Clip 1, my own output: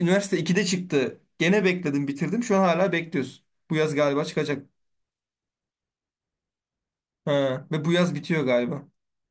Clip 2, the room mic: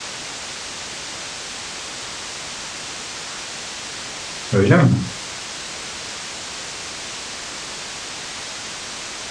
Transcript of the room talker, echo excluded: Öyle mi?

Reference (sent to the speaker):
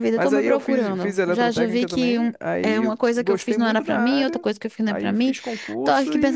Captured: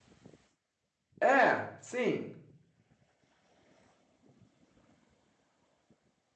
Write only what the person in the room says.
É, sim,

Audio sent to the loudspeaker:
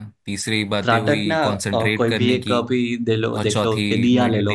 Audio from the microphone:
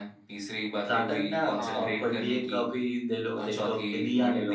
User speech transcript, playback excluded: हाँ

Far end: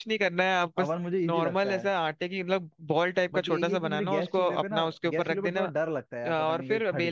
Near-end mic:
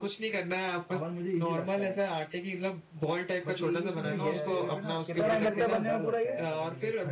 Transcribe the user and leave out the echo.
सही है यार ये तो कितना टाइम लगता है बनने में पूरा ये

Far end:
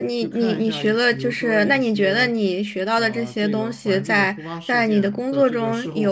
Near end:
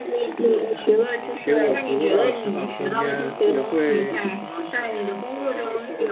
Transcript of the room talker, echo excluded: 给我足够大的成长空间，也会

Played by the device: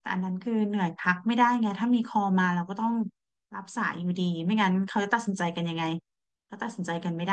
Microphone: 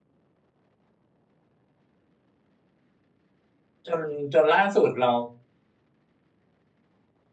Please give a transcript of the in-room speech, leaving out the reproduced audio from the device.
จนจนล่าสุดเรา

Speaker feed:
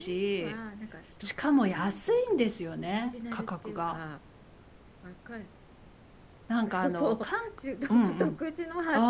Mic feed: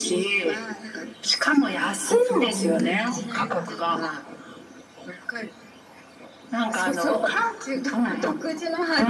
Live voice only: そういう、なんていうのかな。

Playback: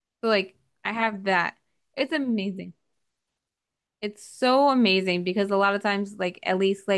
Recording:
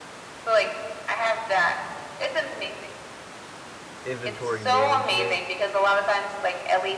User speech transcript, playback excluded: inventory management,

